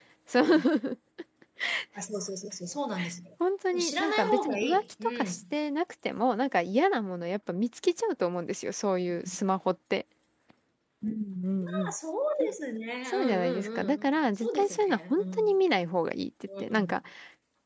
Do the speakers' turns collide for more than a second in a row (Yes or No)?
Yes